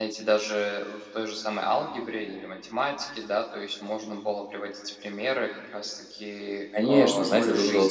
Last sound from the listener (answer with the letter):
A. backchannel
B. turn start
B